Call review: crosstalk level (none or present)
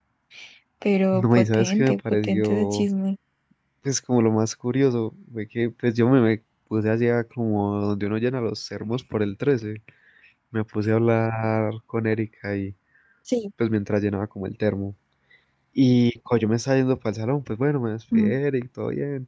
present